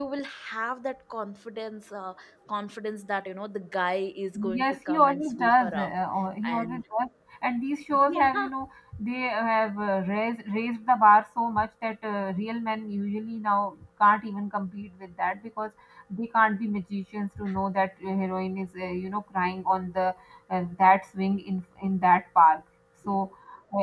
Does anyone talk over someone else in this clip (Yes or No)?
Yes